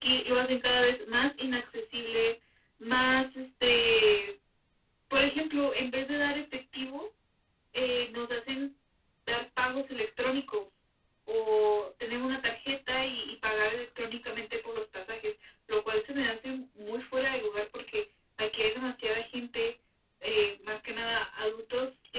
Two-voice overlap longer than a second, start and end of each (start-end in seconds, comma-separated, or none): none